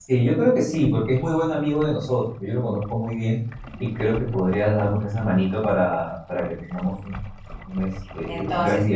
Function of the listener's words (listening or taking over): taking over